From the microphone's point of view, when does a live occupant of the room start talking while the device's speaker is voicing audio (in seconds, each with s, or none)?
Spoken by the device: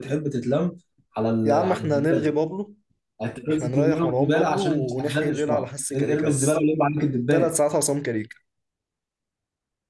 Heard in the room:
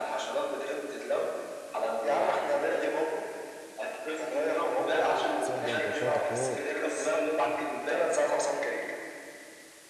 5.4 s